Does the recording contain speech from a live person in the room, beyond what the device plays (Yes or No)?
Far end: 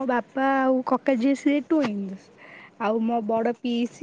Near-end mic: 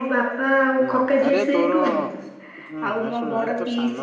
Yes